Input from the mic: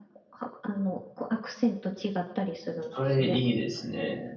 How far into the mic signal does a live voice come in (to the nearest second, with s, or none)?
3 s